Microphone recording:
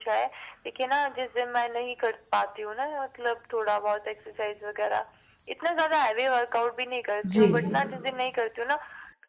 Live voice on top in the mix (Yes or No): Yes